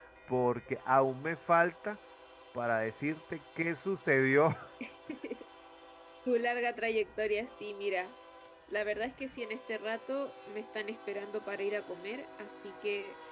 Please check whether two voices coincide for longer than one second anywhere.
No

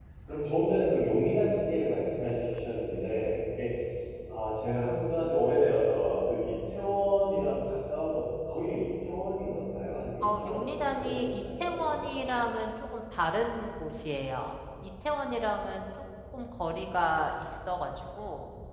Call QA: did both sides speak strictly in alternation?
No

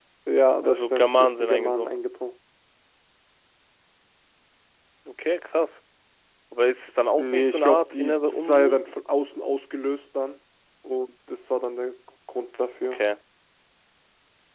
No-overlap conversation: No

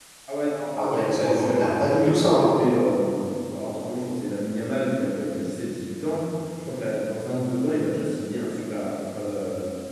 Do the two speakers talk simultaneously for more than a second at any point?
Yes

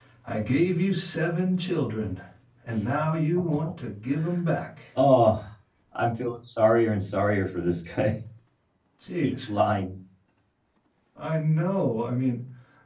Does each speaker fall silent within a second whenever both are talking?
Yes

